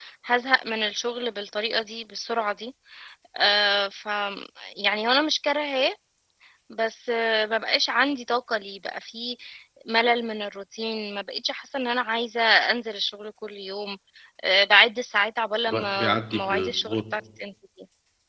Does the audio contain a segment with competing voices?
Yes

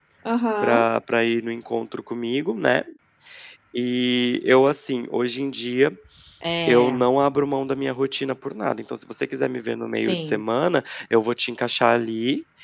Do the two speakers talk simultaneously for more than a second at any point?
No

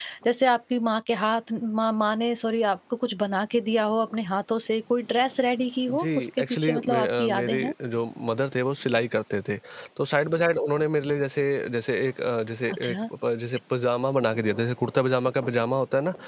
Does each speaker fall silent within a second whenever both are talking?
No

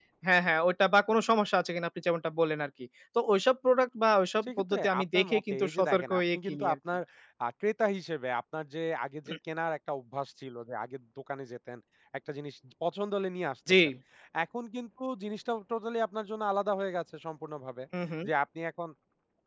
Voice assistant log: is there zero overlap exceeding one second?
No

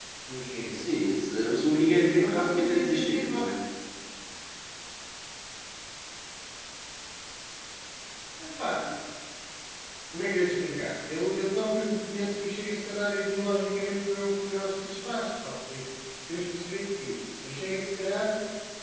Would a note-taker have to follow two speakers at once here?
Yes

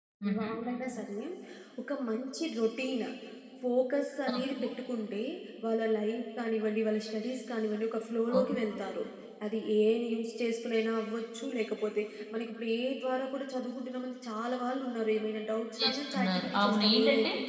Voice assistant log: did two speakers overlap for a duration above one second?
Yes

